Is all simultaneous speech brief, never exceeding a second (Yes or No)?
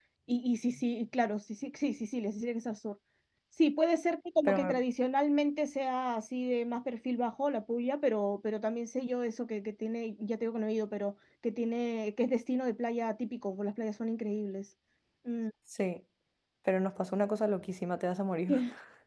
Yes